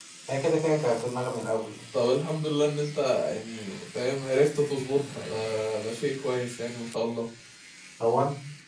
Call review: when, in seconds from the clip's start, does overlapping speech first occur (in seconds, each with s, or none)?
none